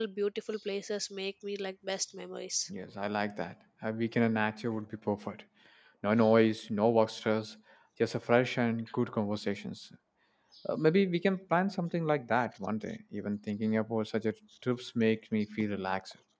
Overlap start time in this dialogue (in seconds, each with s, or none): none